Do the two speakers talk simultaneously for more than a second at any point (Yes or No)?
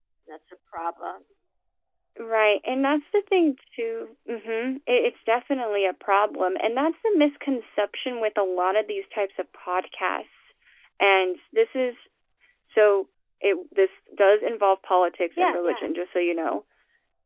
No